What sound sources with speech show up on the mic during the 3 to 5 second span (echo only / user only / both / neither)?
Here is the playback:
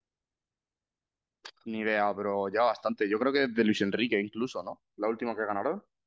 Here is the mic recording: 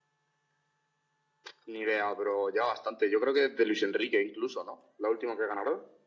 echo only